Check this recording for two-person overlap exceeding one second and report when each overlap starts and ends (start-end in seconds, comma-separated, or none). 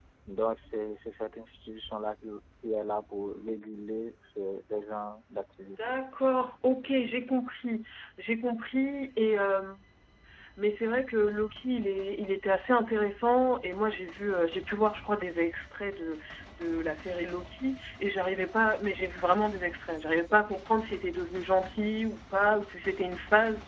none